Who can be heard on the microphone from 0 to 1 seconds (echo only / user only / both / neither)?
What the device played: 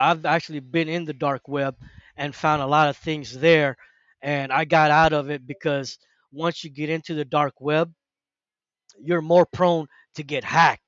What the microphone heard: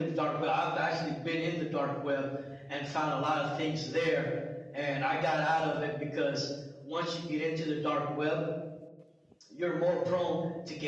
echo only